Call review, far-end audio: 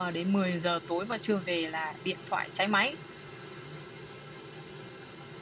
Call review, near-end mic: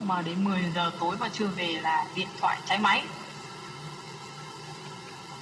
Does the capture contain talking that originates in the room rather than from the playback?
No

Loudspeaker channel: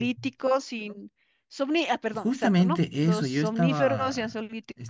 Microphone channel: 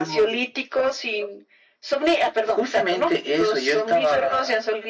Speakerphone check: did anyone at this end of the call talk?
No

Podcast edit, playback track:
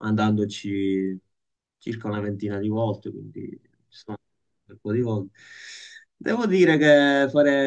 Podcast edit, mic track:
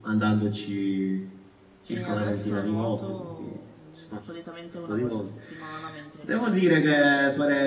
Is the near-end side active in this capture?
Yes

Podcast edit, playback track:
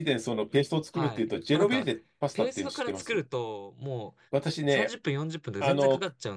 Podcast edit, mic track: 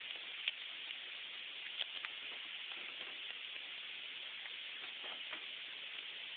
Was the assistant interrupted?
No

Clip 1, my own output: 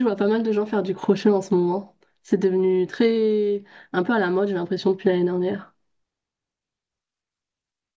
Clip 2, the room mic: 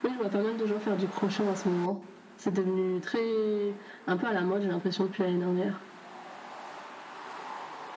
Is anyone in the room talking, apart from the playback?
No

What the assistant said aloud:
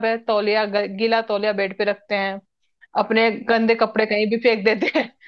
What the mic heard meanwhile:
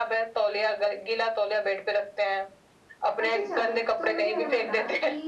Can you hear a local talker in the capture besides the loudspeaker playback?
Yes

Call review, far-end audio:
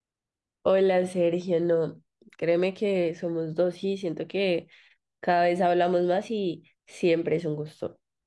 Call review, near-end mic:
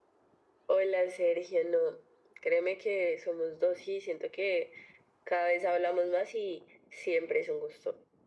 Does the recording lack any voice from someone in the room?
Yes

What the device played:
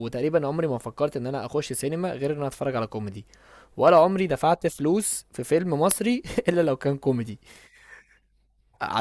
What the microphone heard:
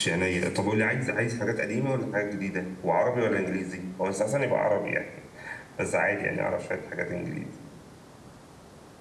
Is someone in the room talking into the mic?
Yes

